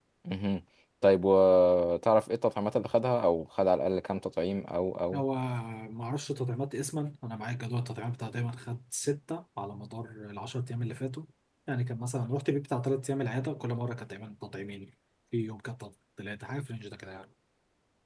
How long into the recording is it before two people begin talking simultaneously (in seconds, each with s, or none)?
none